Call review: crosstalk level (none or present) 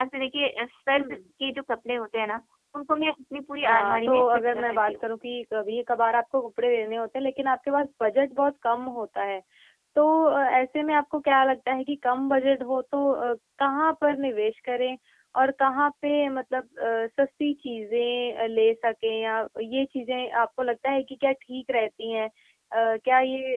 present